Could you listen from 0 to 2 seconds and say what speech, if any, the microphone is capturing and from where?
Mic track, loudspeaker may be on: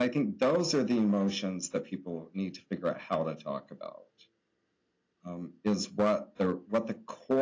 echo only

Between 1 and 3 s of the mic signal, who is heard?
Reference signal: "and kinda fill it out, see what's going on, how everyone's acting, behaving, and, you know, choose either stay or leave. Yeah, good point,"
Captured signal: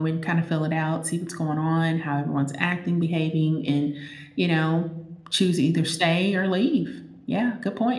echo only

